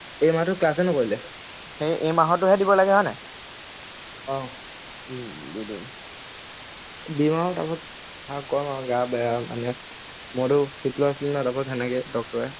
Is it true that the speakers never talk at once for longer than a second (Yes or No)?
Yes